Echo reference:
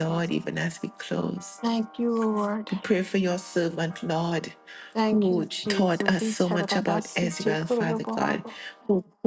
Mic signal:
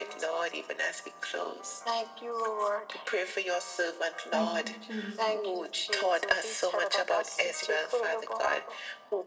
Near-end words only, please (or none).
Thank you, Jesus.